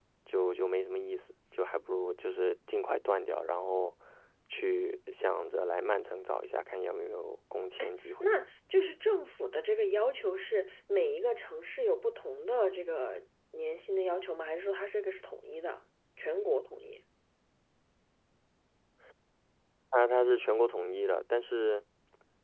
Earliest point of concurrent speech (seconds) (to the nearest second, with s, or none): none